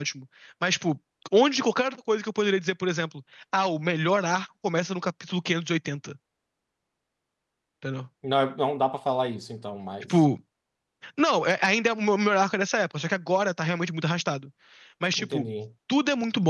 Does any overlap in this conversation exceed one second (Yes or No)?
No